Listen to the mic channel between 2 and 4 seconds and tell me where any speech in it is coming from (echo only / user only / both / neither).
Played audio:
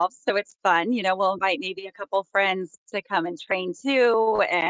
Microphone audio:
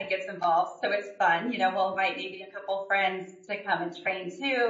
echo only